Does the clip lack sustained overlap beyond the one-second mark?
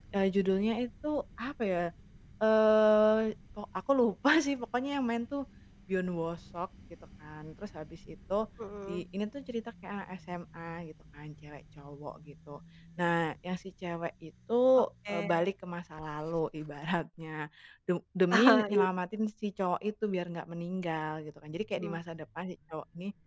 Yes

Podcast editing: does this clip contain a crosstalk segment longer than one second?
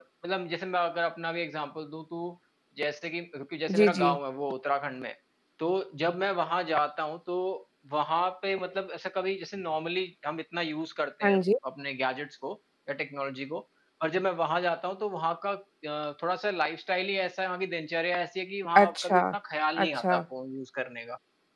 No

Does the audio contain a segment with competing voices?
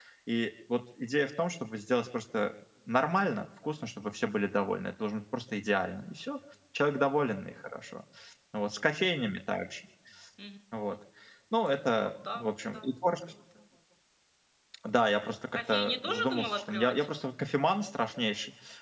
Yes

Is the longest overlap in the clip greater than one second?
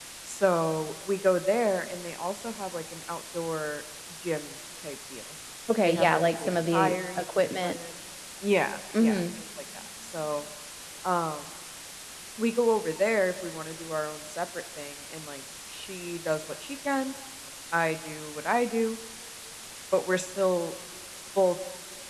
Yes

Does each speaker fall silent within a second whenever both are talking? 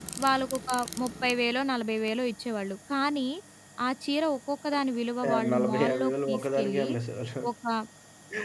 No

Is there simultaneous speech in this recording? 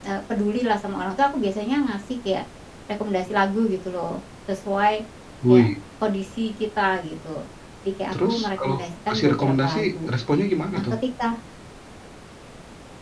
Yes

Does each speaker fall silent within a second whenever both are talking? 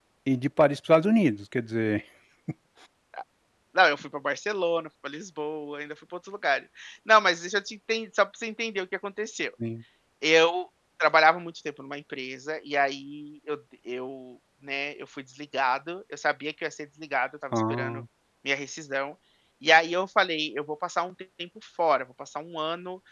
Yes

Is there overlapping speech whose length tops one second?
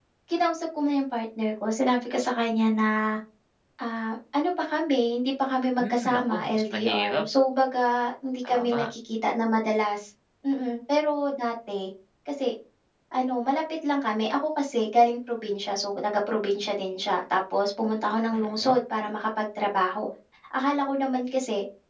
Yes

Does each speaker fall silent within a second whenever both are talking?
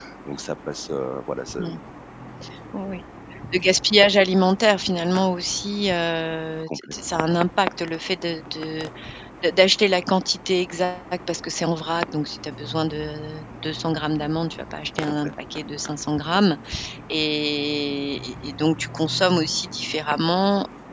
Yes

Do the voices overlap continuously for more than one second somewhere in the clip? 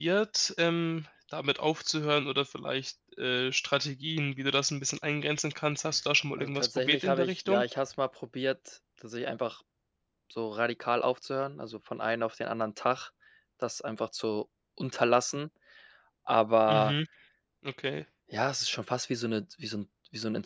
Yes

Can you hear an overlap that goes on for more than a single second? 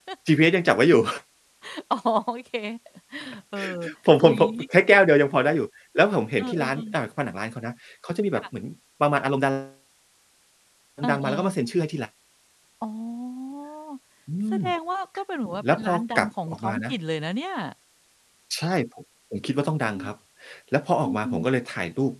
Yes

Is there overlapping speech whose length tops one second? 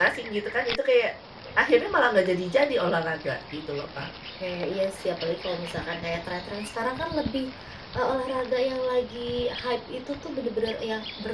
No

